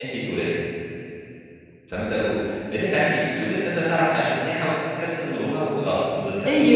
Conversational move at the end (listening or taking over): taking over